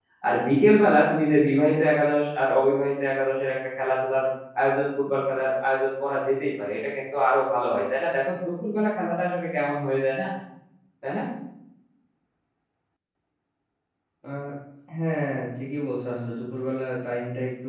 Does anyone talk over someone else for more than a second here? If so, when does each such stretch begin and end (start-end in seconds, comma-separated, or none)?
none